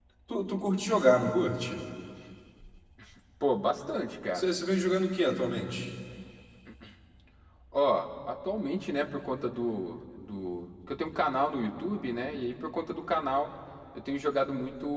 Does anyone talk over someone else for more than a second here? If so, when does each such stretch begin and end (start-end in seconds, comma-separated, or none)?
none